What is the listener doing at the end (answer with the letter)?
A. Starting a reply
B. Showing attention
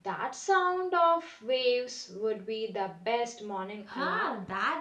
A